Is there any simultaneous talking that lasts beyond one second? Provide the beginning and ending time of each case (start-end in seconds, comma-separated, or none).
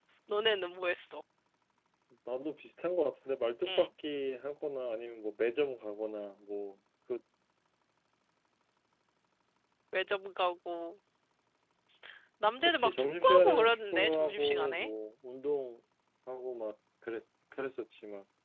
12.7-14.9